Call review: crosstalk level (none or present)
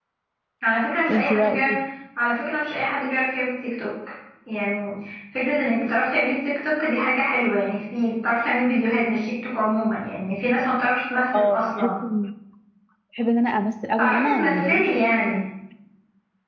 present